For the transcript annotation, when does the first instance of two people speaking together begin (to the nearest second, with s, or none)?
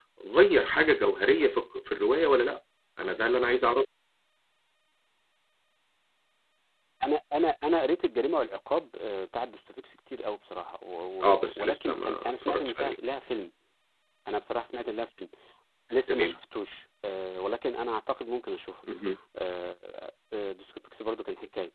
11 s